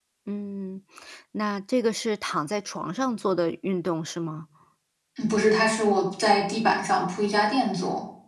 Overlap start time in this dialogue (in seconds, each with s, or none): none